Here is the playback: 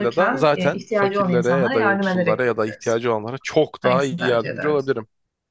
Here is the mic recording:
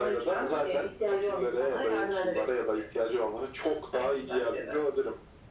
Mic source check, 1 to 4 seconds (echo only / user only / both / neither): echo only